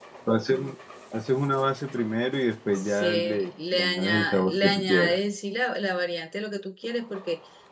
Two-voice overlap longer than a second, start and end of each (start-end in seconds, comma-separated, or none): 2.8-5.2